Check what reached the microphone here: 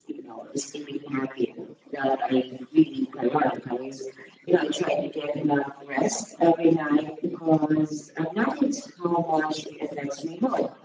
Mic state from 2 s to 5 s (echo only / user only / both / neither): echo only